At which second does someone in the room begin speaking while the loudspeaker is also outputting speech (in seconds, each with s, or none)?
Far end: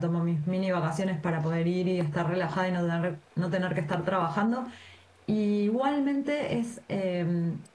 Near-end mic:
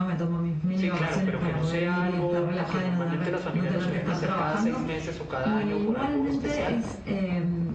0.8 s